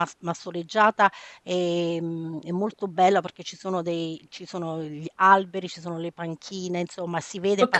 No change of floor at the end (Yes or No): Yes